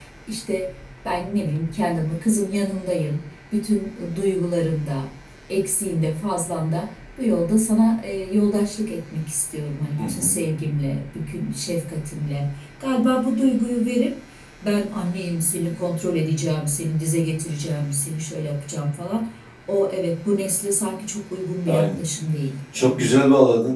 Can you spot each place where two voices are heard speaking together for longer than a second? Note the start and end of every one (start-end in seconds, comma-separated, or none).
none